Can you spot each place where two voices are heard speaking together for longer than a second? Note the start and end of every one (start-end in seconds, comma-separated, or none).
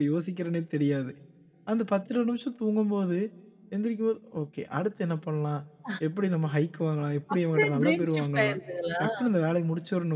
7.3-8.6